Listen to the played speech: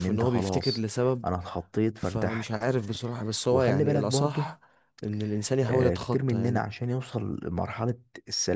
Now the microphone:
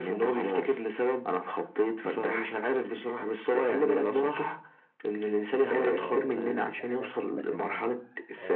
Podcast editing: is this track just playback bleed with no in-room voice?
No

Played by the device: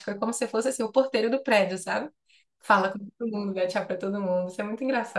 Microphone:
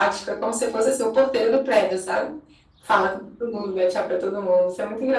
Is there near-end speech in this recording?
No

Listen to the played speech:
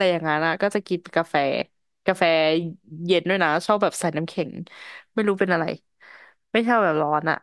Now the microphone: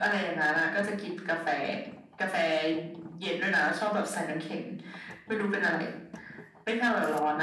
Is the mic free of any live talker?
Yes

